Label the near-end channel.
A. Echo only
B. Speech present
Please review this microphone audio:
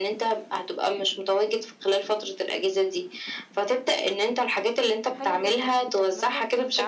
B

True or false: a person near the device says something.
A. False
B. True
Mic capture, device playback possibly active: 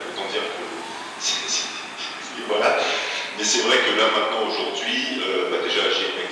A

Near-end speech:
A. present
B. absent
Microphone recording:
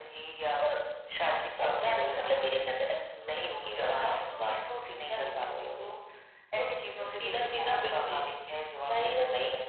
B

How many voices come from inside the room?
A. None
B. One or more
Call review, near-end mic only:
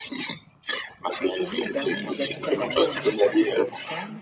B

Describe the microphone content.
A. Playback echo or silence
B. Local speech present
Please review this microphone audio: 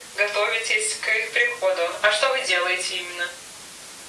A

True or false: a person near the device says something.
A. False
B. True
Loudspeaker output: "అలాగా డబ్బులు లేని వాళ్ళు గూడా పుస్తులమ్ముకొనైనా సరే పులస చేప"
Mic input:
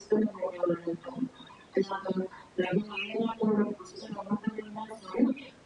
A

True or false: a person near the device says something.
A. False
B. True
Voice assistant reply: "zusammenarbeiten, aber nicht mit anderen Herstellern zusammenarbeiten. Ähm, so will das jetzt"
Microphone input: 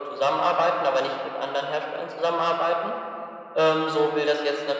A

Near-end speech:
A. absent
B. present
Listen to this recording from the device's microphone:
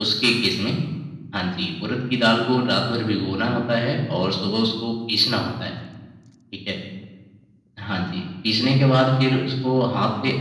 A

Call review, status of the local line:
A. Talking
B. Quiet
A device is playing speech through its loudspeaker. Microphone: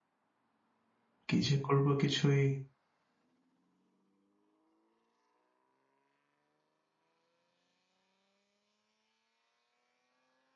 A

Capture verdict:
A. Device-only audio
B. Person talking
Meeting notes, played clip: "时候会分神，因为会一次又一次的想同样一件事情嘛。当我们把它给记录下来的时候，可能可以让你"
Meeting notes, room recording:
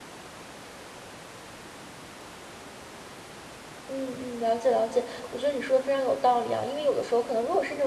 B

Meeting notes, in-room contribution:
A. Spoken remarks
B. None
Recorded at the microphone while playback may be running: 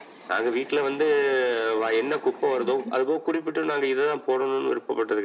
A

